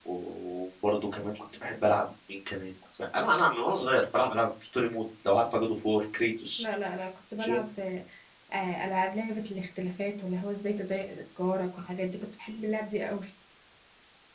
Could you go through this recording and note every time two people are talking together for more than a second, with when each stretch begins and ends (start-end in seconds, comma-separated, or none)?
none